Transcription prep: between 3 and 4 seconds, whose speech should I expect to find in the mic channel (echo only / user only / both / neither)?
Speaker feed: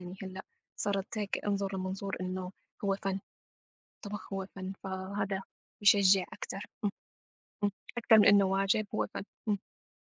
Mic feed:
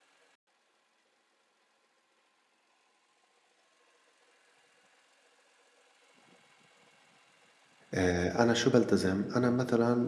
neither